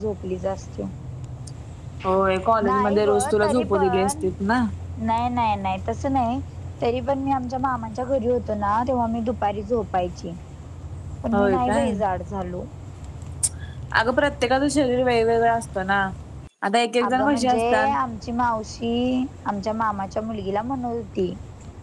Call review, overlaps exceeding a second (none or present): present